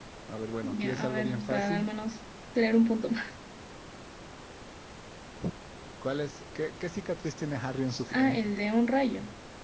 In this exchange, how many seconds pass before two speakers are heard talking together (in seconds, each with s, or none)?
0.6 s